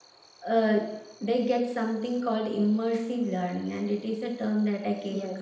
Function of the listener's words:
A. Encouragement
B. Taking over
B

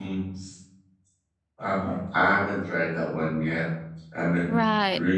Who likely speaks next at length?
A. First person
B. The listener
A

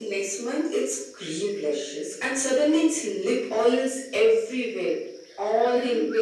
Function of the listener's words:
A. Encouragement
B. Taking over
A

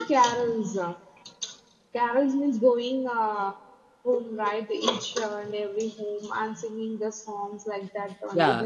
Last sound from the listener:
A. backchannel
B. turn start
B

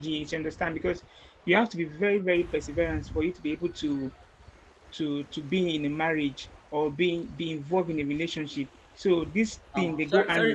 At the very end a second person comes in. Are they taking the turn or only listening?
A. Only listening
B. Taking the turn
B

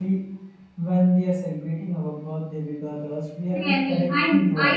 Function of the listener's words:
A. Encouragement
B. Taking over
B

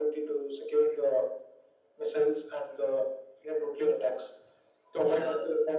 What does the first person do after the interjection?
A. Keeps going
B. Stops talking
A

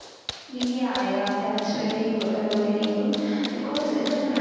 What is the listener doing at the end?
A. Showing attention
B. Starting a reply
A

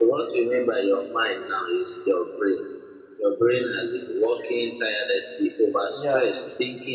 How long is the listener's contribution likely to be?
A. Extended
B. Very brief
B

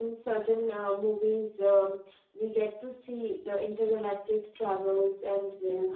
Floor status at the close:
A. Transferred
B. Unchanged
B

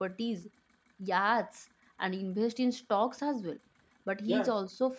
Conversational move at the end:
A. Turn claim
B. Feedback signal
B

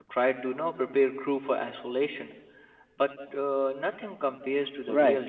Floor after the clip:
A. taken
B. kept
A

